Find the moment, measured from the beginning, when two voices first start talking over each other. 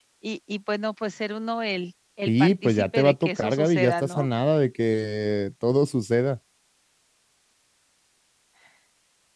2.3 s

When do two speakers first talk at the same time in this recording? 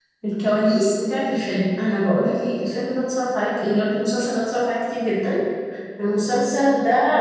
none

